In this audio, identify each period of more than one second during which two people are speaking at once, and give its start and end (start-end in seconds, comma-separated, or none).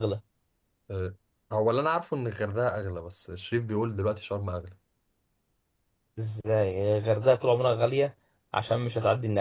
none